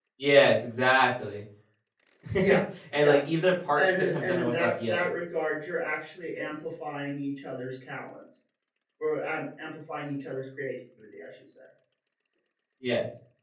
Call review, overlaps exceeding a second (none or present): present